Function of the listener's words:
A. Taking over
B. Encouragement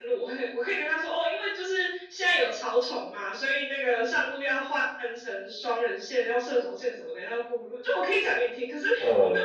B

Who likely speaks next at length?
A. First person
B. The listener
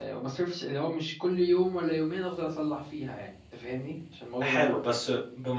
B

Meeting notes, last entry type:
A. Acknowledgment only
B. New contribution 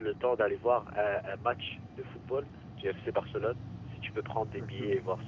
B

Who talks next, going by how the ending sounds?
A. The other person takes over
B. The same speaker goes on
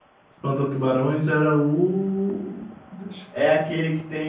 A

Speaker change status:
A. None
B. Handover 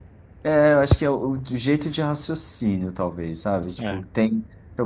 A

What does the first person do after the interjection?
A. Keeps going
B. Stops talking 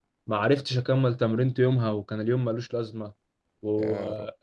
A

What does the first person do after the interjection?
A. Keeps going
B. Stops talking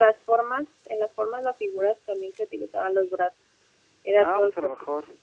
B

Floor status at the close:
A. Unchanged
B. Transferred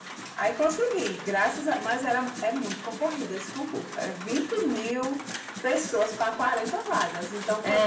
B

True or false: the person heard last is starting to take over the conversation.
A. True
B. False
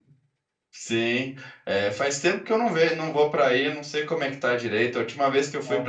B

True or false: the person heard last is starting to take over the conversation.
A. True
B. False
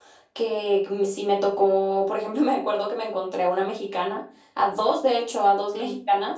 B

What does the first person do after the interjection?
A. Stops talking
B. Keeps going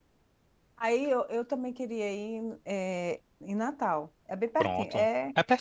A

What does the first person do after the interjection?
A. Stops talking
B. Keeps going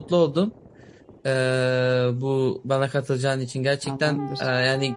B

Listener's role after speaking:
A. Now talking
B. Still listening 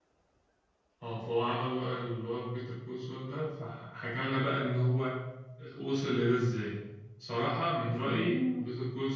B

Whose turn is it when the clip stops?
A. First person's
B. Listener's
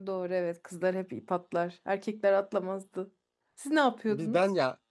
B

